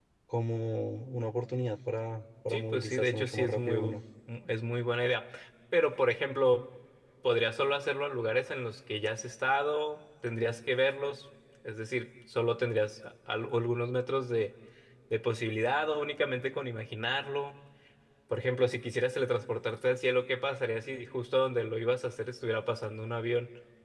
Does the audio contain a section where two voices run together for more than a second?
Yes, from 2.5 s

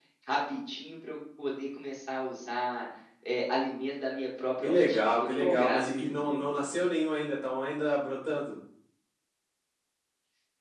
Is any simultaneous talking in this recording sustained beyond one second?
Yes, from 4.6 s

